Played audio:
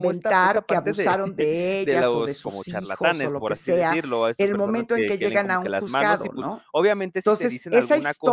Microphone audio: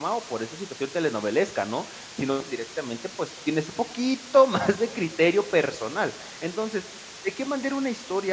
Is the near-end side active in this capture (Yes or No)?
Yes